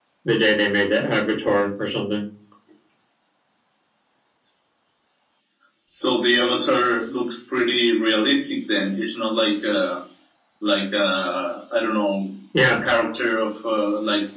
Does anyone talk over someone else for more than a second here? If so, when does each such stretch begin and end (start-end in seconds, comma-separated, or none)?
none